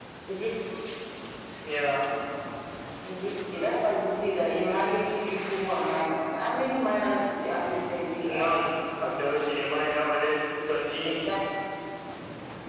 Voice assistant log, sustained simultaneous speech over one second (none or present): none